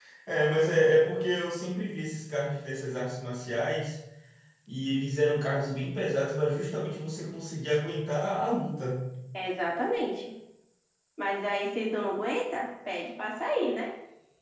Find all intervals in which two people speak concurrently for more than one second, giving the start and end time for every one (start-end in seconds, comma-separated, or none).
none